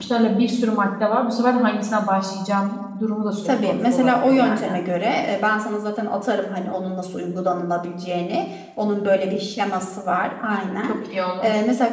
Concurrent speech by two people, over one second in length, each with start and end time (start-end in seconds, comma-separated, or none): 3.4-4.8